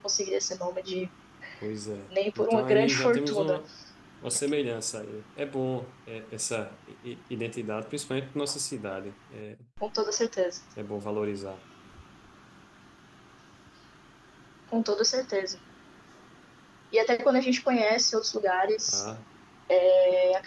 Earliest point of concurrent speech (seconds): 2.4 s

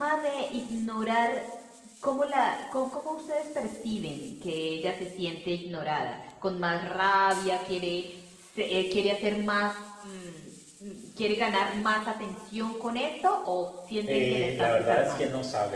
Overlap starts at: 14.1 s

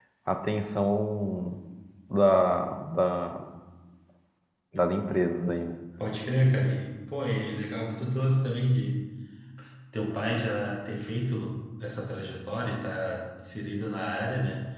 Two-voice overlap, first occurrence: none

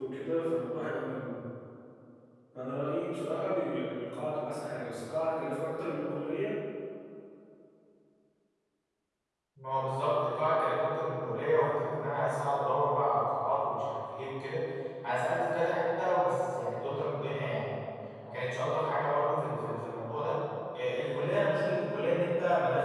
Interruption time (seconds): none

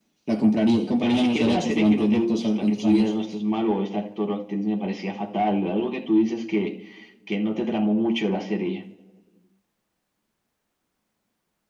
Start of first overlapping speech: 0.9 s

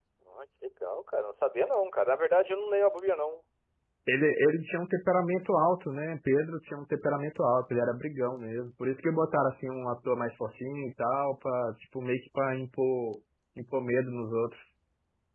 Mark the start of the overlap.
none

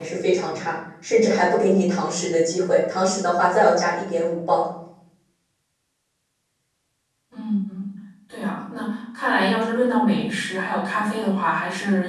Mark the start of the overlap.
none

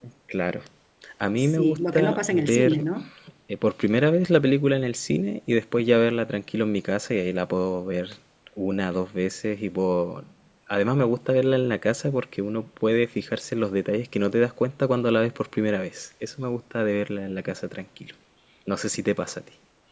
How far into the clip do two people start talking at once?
1.4 s

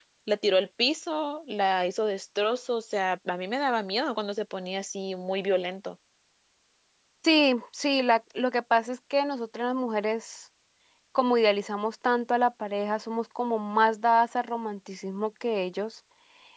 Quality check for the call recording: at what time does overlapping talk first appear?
none

